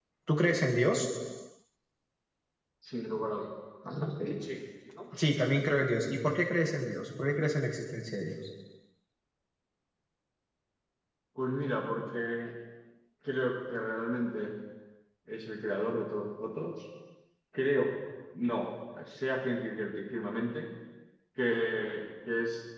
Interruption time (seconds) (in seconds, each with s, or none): none